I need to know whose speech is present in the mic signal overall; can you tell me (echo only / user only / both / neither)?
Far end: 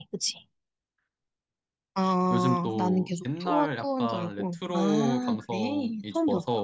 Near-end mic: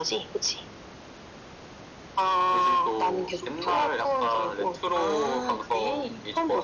echo only